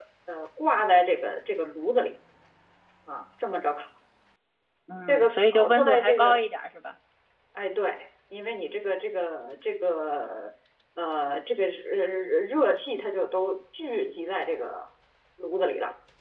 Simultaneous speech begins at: 5 s

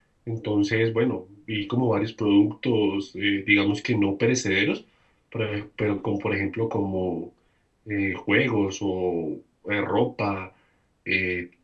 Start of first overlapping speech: none

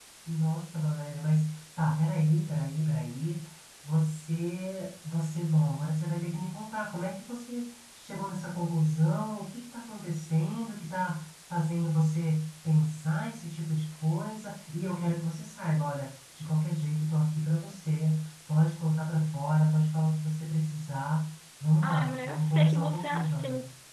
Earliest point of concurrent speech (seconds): 22 s

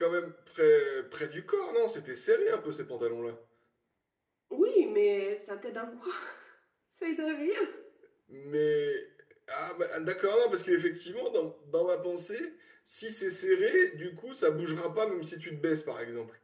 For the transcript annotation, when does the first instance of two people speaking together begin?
none

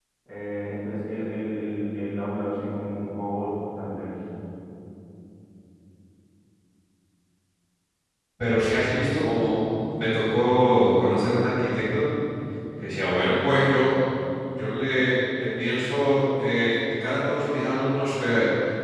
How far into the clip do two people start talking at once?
none

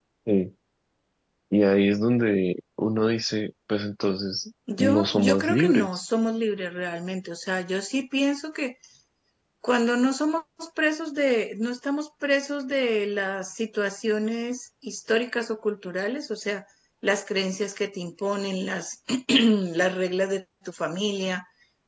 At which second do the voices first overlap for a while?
5 s

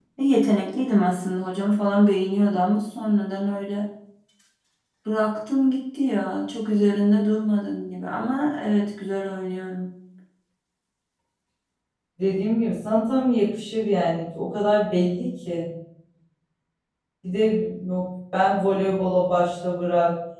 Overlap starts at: none

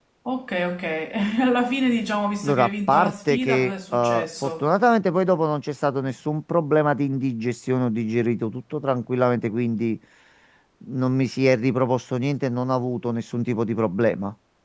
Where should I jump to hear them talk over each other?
2 s

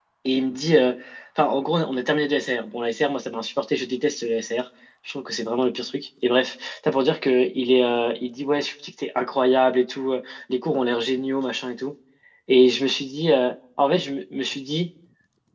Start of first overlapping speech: none

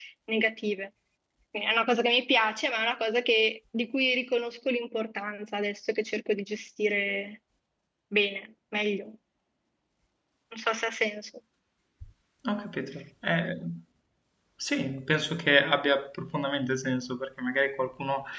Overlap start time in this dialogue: none

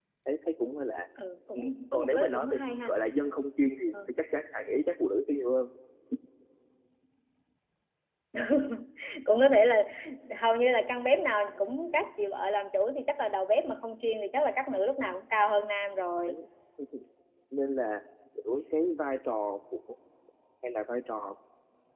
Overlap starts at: 2 s

